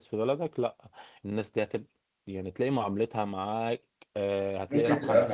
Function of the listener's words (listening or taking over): taking over